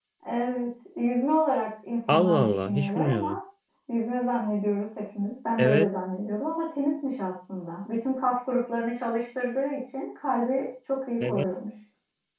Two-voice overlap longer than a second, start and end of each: 2.1-3.4

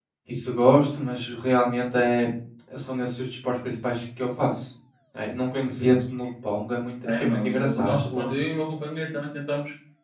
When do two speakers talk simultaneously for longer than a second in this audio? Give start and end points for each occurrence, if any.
7.0-8.3

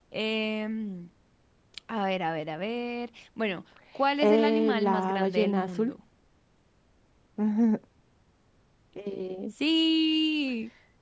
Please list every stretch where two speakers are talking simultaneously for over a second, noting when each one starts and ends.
4.2-5.9

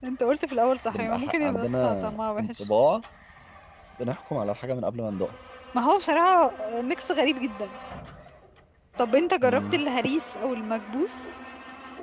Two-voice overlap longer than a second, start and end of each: 0.9-2.7

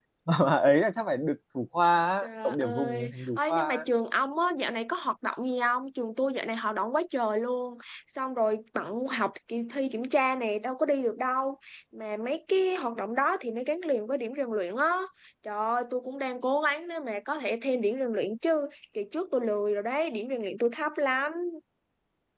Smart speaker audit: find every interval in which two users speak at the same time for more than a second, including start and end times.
2.2-3.8

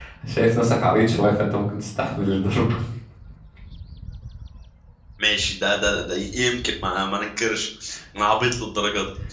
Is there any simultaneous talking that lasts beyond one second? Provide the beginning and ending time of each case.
none

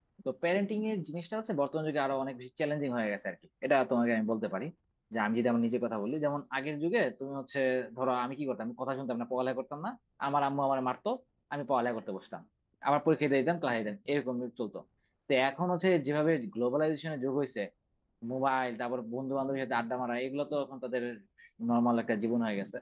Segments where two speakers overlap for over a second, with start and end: none

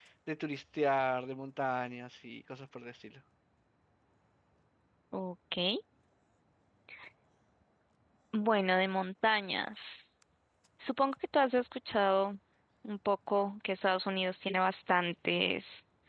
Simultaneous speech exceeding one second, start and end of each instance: none

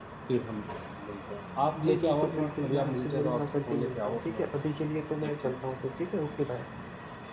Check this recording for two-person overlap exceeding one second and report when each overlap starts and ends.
1.9-4.4

